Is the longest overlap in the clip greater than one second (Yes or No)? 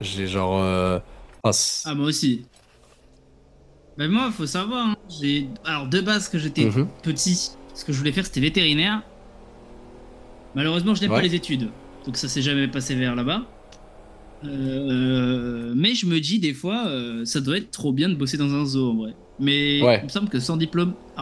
No